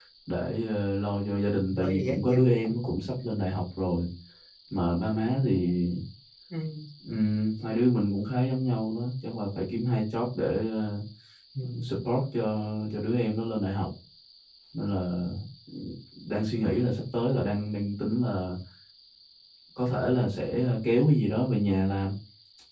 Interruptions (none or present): present